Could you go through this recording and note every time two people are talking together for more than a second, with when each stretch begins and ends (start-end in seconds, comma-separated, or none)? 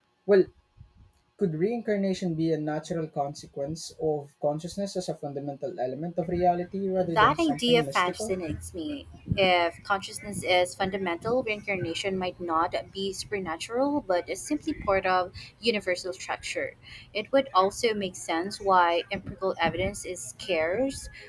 7.0-8.4